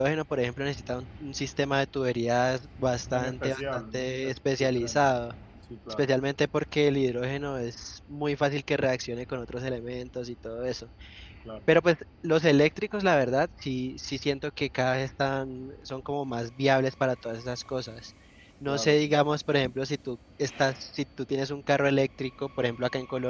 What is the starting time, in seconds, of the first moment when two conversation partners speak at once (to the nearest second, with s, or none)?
3 s